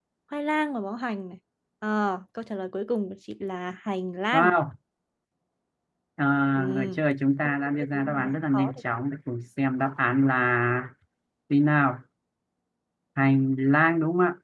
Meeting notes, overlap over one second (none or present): present